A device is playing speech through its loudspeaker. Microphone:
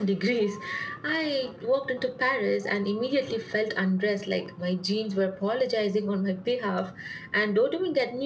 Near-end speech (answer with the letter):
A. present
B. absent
A